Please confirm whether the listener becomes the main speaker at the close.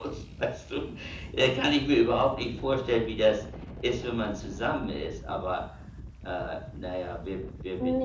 Yes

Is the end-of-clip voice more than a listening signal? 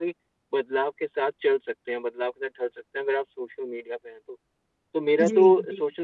No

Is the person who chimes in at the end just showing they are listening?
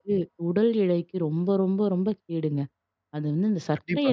Yes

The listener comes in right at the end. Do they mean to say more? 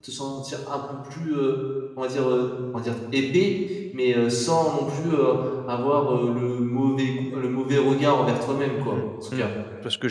Yes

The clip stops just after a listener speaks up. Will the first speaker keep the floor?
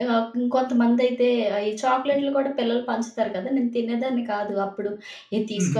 Yes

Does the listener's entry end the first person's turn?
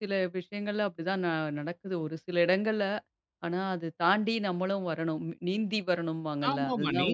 Yes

